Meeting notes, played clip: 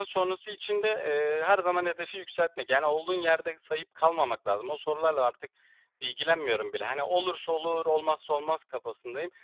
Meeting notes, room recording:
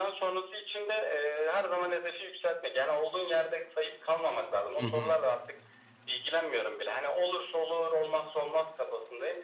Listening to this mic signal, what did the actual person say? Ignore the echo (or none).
Hı hı.